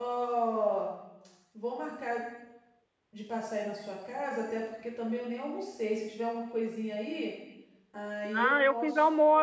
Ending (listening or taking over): taking over